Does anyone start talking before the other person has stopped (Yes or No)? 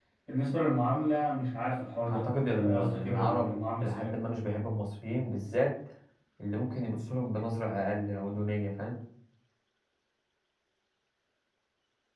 Yes